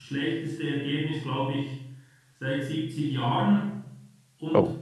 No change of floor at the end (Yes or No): Yes